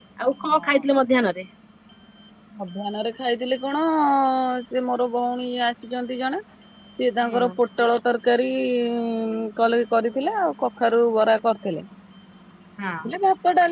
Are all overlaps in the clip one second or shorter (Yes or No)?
Yes